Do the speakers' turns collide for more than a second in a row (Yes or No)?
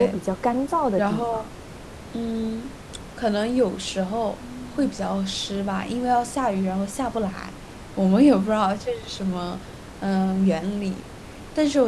No